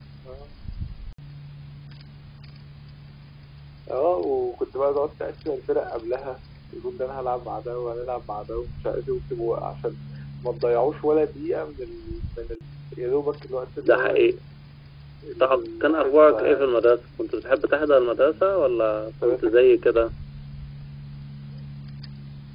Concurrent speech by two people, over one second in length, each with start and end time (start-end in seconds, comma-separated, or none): 15.4-16.6